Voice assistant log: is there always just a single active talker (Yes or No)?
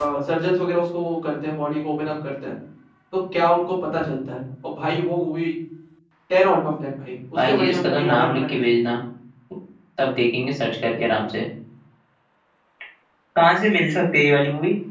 No